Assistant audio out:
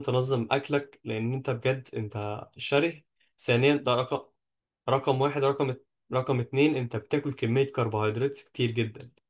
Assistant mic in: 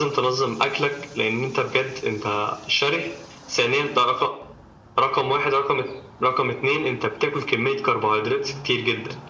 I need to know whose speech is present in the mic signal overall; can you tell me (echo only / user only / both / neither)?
echo only